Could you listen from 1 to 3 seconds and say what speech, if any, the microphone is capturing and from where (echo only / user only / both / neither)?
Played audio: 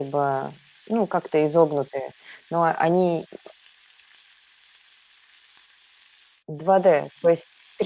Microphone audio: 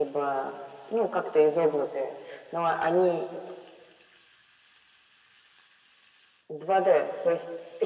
echo only